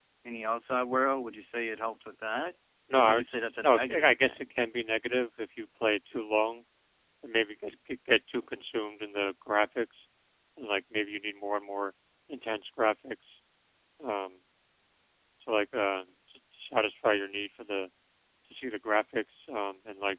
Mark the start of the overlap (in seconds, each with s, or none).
2.9 s